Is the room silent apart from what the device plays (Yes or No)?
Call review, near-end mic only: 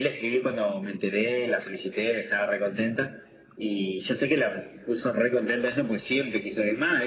Yes